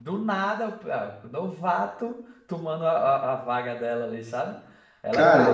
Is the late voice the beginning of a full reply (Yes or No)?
Yes